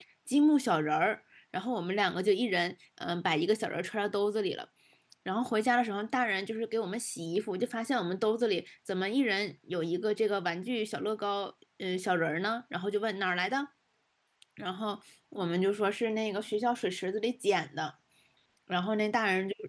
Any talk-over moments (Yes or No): No